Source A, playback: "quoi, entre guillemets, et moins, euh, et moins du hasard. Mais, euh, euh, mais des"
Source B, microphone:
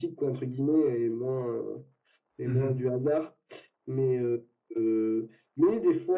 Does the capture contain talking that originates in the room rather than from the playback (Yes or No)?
Yes